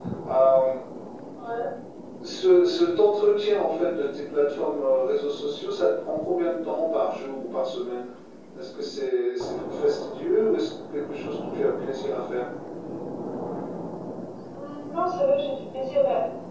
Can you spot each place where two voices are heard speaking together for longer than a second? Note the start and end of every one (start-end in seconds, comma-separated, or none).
none